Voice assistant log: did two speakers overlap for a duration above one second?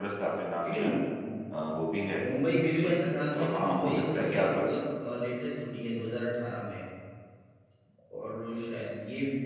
Yes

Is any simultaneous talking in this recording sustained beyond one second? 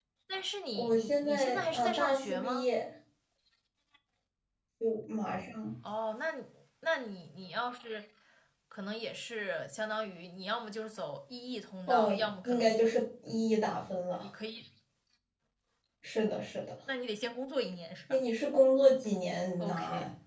Yes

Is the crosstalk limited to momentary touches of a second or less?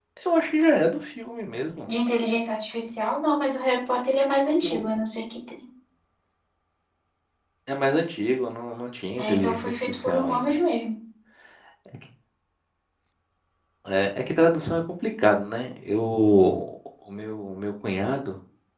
No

